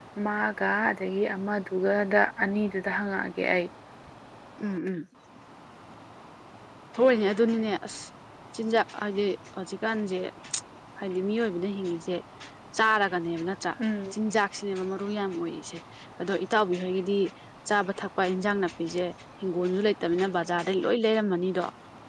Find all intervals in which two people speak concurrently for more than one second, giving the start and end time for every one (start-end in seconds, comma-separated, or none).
none